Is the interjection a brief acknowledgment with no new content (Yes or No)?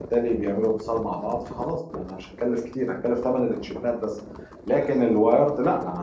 Yes